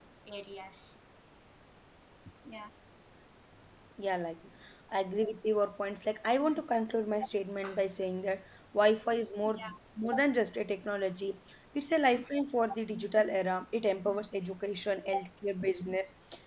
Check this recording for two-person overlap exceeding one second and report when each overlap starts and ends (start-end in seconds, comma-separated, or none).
none